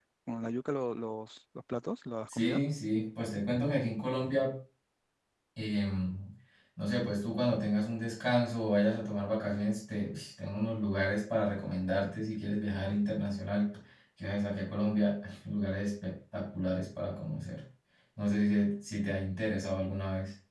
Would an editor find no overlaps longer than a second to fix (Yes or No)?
Yes